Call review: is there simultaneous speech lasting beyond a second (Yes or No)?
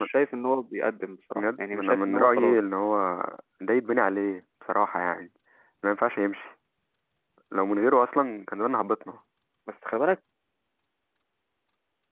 Yes